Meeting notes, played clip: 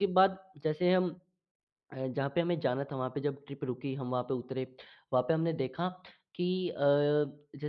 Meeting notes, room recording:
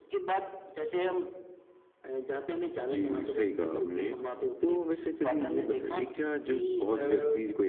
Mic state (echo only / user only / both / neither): both